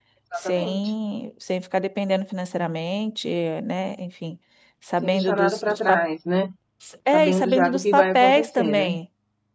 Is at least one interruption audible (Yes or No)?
Yes